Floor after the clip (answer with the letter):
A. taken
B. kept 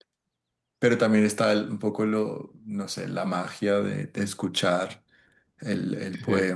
A